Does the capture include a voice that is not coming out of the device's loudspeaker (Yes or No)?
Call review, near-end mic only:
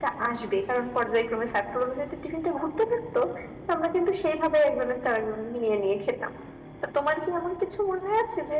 Yes